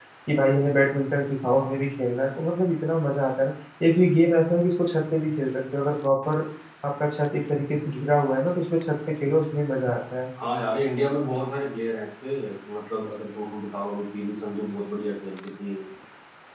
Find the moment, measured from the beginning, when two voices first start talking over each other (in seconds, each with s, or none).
none